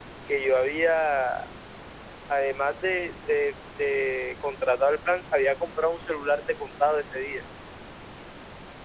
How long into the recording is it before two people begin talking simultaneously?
none

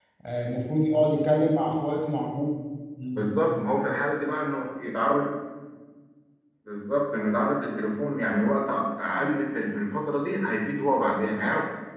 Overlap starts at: none

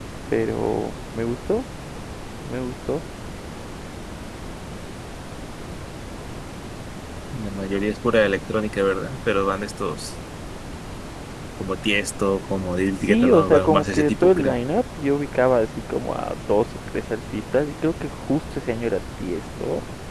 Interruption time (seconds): 13.0 s

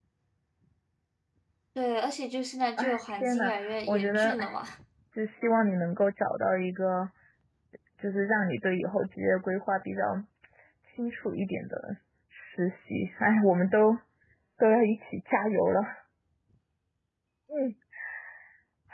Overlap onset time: 2.8 s

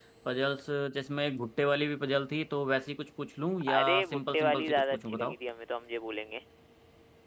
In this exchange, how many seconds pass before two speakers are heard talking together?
3.6 s

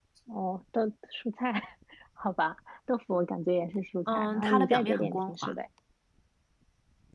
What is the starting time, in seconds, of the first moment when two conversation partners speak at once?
4.1 s

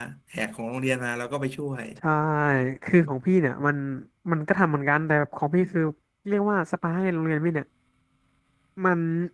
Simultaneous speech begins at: none

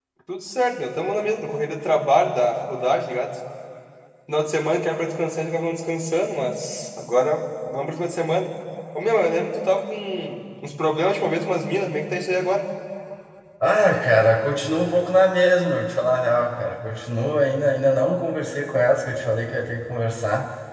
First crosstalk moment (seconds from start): none

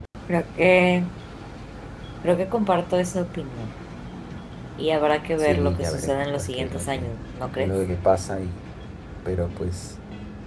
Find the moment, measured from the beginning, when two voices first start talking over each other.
5.4 s

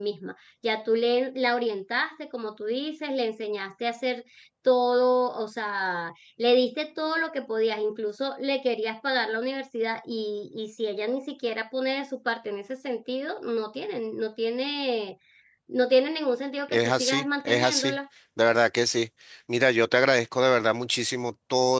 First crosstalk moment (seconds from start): 16.7 s

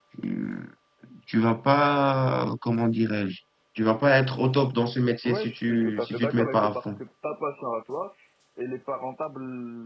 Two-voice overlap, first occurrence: 5.2 s

